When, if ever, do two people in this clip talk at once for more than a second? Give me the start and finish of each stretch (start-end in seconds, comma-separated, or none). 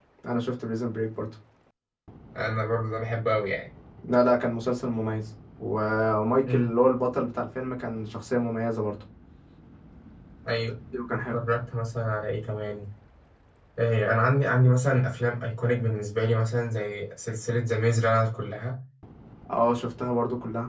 none